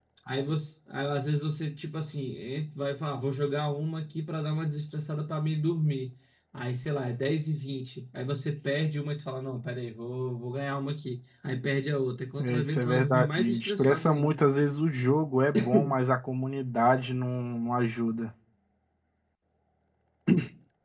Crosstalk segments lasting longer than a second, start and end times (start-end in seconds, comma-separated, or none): 12.4-14.4